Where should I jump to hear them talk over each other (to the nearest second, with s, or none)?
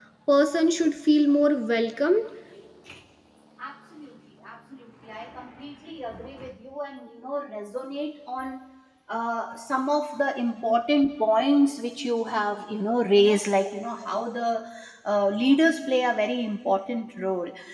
none